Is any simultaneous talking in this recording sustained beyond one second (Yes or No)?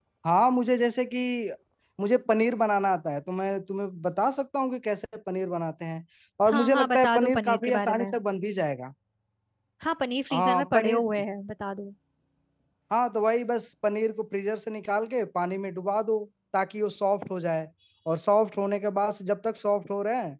Yes